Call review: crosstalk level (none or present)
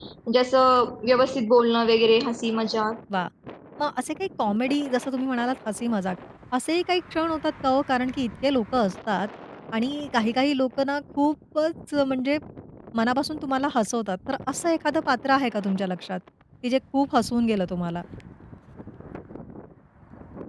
none